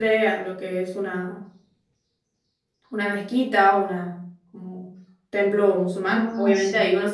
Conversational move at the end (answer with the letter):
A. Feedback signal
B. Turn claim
A